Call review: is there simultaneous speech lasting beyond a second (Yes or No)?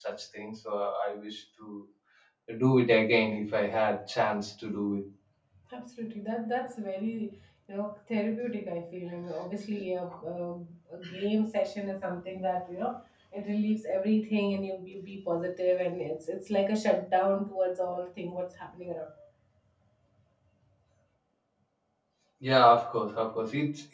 No